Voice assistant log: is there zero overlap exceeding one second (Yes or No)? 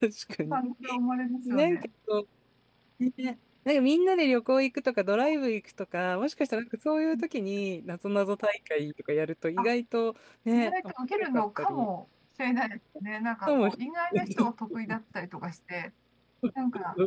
No